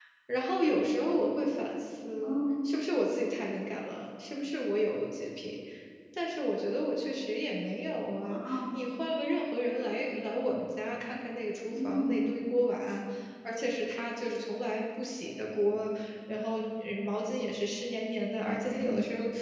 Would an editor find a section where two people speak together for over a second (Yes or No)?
No